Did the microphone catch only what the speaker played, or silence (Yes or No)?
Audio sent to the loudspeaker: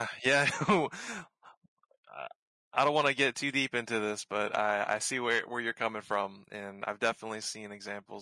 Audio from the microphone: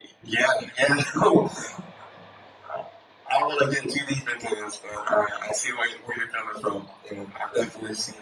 Yes